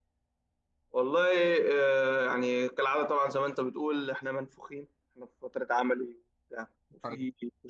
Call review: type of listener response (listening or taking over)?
listening